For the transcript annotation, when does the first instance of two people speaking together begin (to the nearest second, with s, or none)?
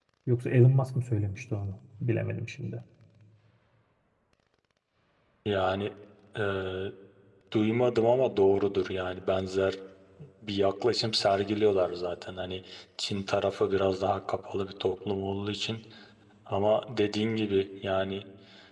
none